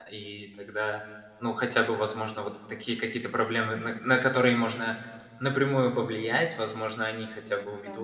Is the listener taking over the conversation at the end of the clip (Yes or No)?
No